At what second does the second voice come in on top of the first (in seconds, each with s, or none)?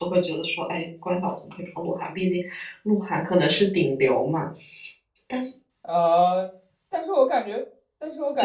none